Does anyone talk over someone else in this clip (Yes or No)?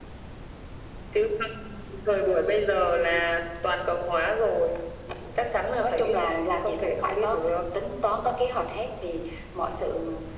Yes